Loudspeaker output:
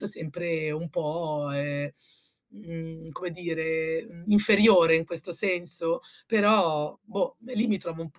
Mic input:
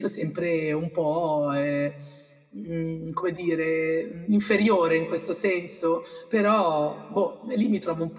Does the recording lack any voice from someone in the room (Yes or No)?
Yes